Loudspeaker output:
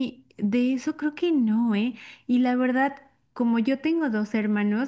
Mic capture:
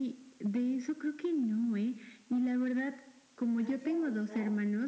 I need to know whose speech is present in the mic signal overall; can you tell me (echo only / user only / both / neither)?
both